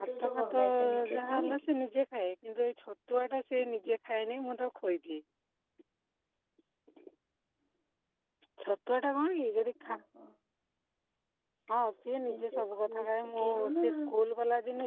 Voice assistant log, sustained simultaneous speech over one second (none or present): present